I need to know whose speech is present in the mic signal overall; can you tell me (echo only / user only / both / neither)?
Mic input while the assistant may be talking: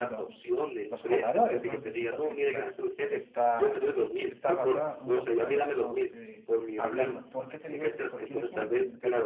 both